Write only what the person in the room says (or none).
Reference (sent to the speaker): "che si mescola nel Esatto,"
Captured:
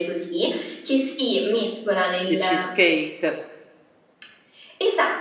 le cheesecake.